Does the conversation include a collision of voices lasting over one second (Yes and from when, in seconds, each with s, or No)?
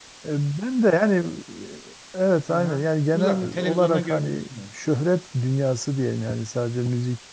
Yes, from 2.5 s